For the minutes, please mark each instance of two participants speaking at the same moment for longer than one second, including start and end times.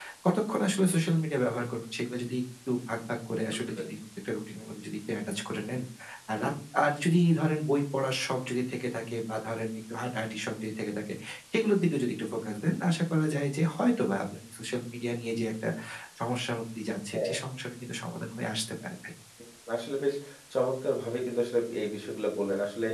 none

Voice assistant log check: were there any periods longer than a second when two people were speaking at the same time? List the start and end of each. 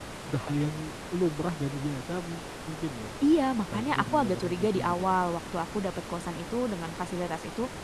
3.7-5.2

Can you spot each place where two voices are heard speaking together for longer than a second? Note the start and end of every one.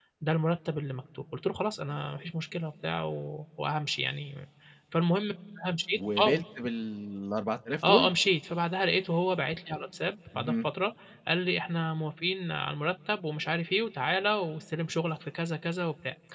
none

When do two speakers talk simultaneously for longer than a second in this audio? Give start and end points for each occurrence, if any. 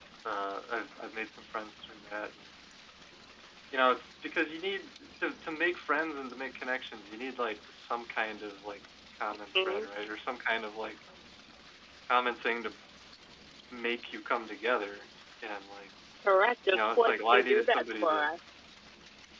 16.7-18.3

